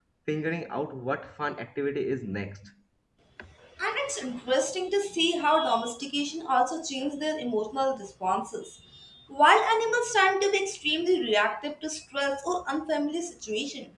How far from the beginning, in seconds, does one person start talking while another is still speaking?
none

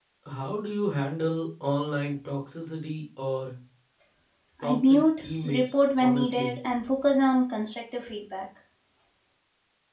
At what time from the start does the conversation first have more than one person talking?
4.6 s

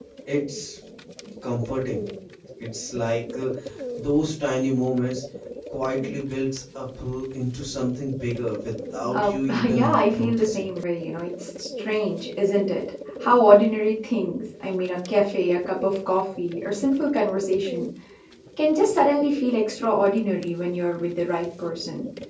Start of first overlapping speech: 9.1 s

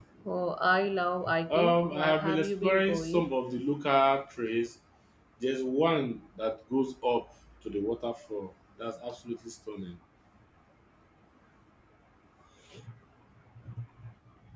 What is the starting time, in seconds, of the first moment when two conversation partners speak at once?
1.5 s

